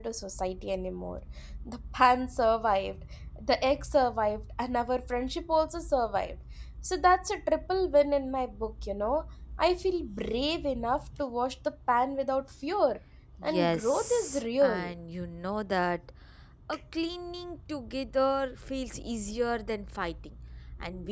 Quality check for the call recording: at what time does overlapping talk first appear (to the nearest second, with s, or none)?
13 s